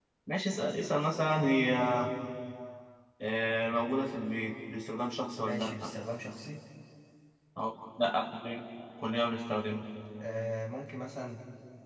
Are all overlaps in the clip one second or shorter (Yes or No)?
Yes